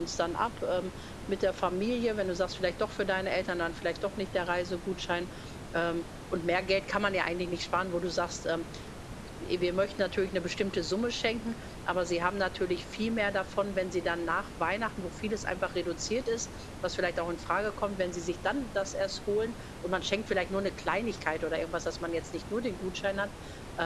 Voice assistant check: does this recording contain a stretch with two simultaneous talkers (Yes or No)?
No